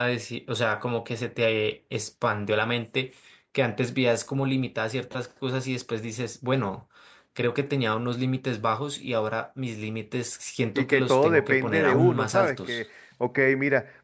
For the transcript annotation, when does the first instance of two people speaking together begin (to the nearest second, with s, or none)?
11 s